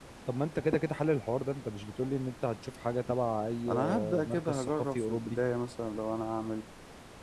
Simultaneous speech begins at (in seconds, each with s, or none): 3.7 s